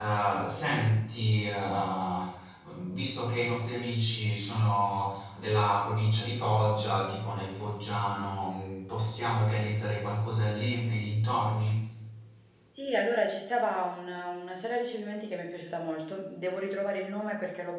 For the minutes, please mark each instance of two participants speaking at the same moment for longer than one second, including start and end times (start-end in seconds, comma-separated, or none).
none